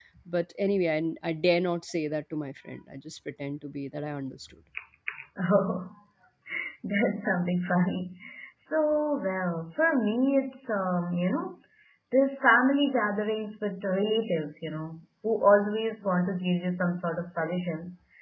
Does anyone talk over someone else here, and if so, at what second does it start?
none

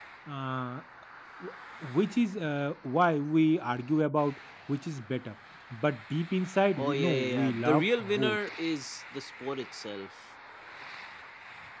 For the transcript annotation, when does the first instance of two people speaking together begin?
6.8 s

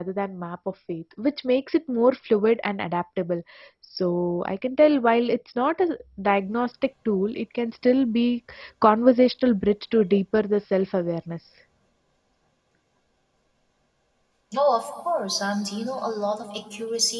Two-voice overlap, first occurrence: none

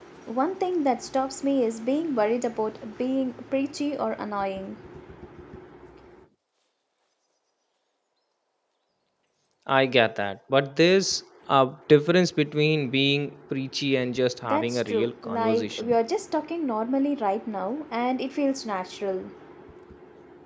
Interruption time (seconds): 14.4 s

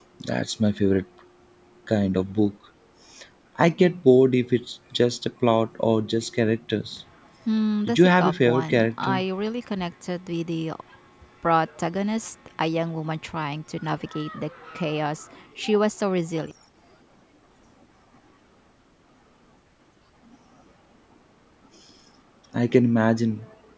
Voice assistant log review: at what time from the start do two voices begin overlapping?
7.9 s

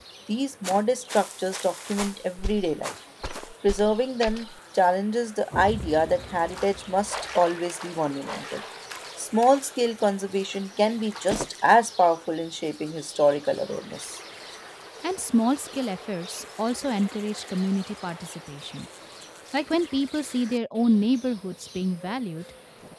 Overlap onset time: none

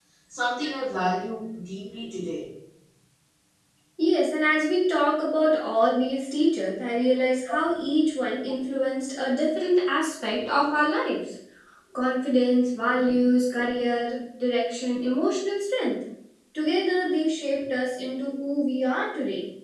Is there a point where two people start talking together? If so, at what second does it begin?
none

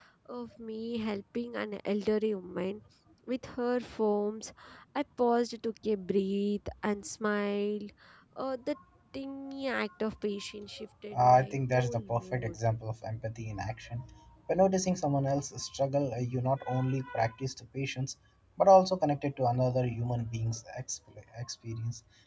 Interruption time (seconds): 11.1 s

